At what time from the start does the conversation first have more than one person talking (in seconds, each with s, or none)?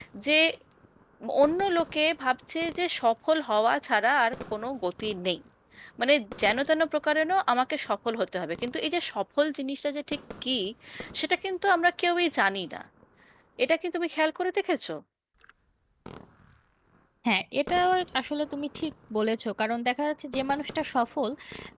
none